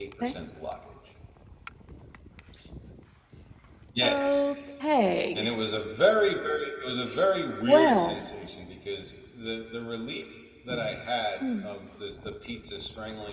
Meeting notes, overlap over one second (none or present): none